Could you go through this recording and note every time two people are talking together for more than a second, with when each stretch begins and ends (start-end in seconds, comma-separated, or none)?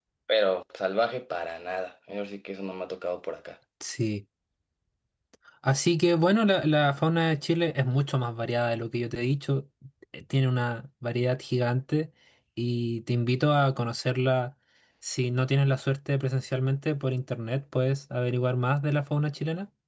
none